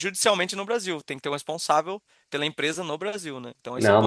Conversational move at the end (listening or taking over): taking over